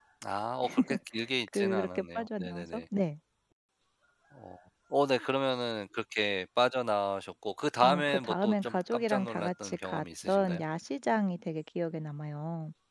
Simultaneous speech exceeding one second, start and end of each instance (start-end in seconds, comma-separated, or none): 1.5-2.8, 7.8-10.6